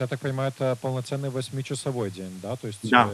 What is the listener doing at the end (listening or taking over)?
listening